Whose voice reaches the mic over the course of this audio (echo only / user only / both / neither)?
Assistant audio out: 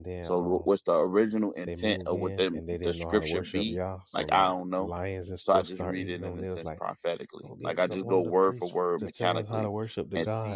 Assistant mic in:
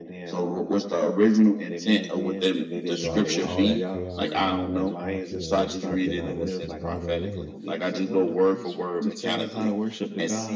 both